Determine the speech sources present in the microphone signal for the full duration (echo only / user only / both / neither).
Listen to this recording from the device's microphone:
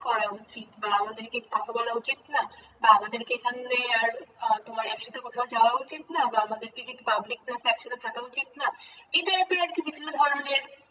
echo only